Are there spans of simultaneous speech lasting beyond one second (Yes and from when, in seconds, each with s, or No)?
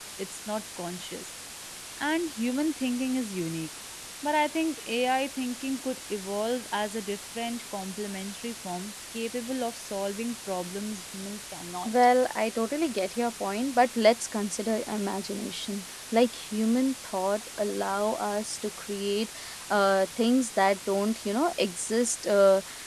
No